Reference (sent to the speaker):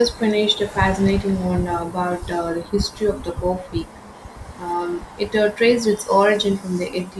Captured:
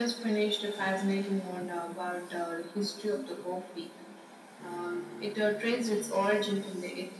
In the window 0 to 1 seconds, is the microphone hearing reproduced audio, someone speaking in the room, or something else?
echo only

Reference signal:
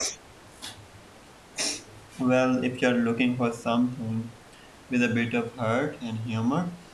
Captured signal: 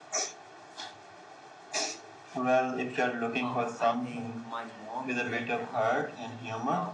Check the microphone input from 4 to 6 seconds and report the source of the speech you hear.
both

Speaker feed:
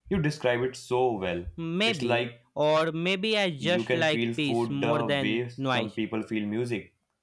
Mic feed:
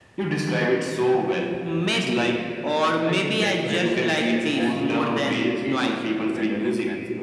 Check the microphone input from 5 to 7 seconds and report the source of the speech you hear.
both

